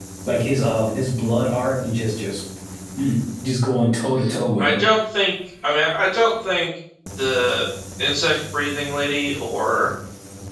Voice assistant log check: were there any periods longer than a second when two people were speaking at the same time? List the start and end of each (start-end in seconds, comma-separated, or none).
none